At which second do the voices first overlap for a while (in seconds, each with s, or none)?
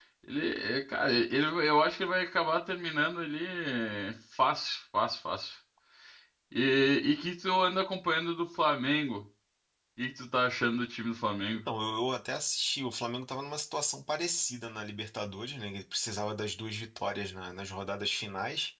none